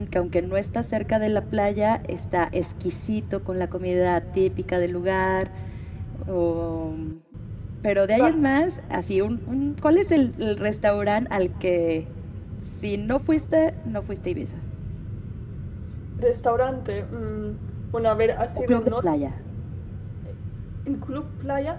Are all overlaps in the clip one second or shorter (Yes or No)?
Yes